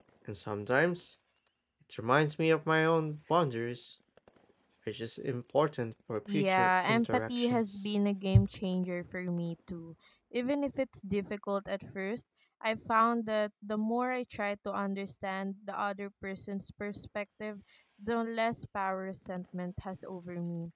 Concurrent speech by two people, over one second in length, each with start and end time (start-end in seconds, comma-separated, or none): 6.3-7.6